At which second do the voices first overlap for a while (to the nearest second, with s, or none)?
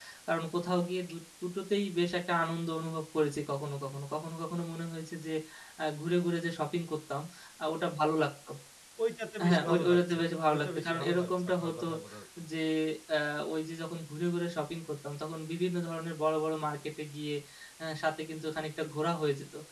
9 s